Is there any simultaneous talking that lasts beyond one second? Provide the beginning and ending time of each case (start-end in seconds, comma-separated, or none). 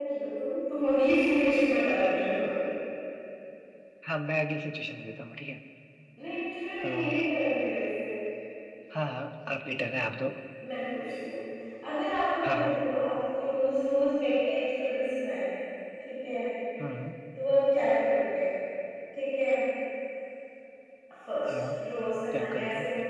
none